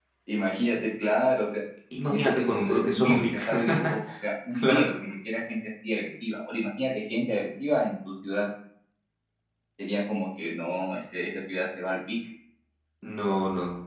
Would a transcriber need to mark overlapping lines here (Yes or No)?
Yes